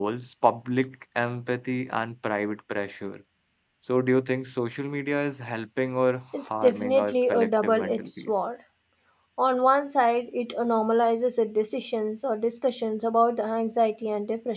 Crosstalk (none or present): present